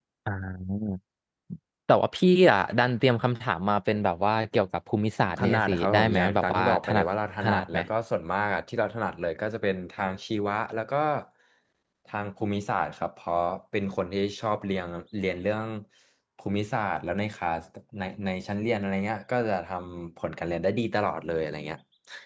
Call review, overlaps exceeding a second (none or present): present